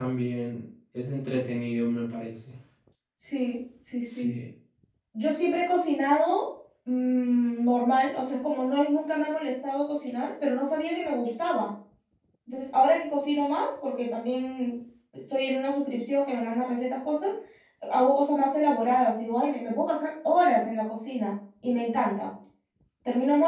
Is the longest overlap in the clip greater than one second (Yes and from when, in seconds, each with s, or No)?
No